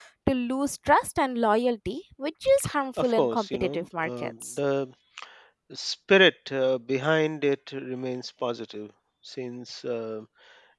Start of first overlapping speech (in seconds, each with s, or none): 3.0 s